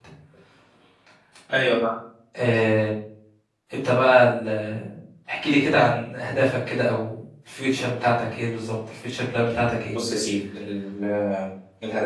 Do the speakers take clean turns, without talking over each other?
Yes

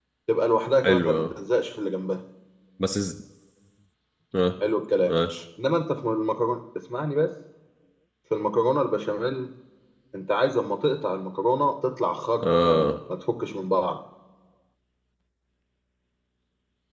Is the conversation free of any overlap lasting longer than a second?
Yes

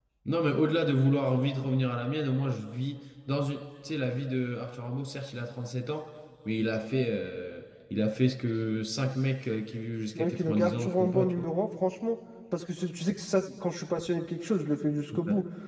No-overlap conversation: No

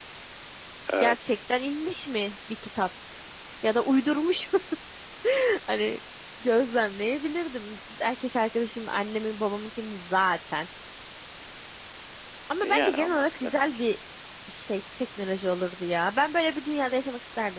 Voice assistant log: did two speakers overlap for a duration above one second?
Yes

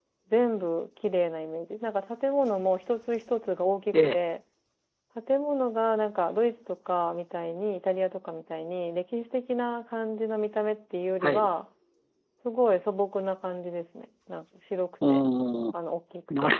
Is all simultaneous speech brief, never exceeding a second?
Yes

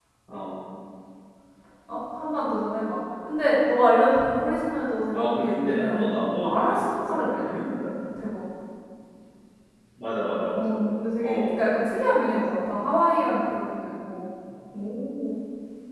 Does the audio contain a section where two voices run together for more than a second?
Yes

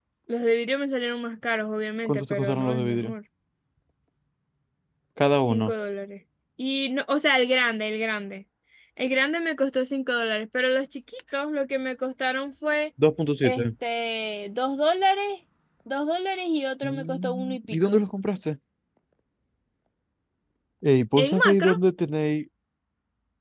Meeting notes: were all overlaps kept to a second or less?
No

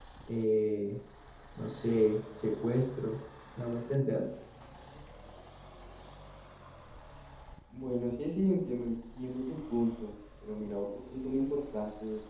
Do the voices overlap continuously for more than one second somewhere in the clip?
No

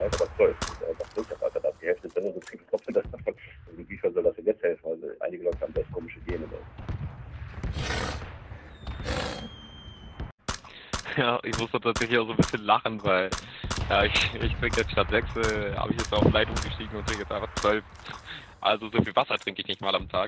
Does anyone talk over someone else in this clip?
No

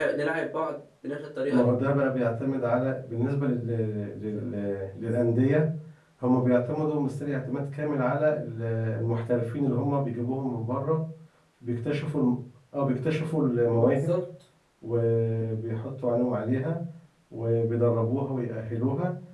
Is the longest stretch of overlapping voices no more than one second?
Yes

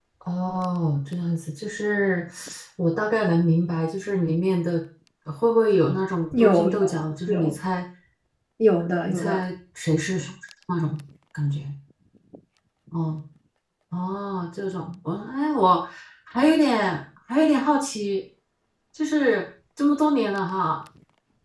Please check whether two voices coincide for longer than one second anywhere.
Yes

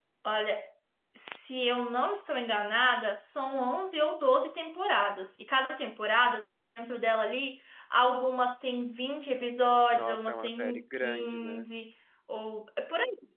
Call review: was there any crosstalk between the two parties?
Yes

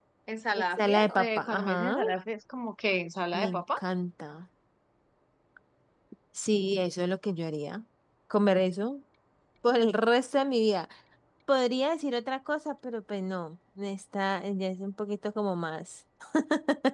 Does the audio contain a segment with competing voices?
Yes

